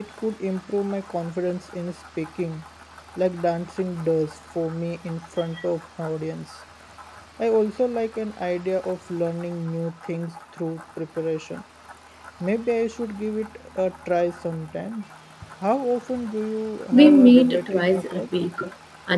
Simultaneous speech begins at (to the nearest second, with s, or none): 17 s